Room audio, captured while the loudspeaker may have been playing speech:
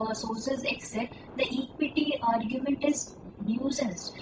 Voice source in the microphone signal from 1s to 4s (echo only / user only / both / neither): echo only